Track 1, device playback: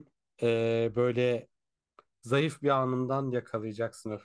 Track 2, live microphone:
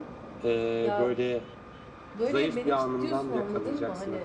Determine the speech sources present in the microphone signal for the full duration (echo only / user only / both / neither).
both